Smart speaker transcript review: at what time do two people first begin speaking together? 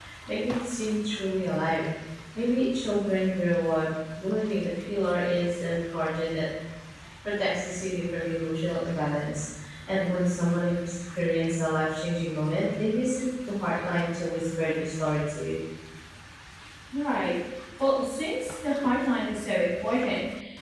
none

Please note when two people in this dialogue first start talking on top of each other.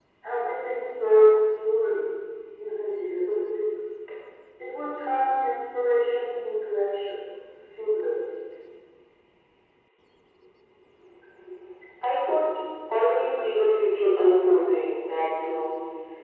none

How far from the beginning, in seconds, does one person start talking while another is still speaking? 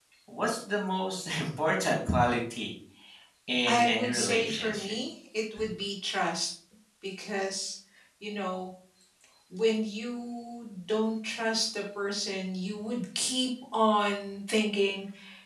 3.7 s

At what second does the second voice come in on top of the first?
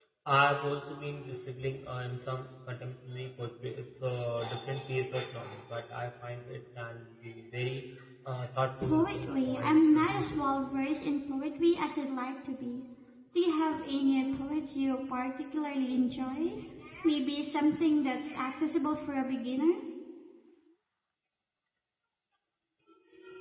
8.8 s

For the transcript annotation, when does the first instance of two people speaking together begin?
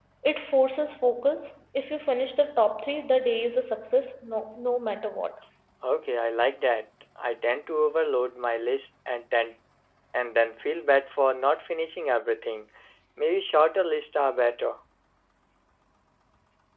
none

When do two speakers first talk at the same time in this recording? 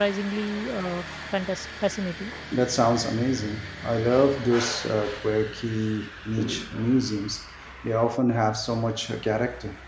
none

